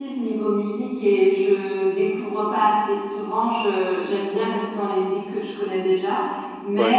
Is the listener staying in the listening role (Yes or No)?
Yes